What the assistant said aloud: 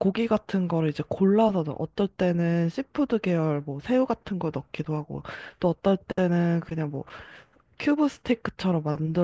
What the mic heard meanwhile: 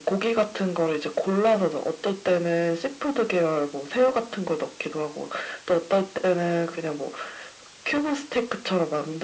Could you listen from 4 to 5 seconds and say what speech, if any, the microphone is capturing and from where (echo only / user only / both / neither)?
echo only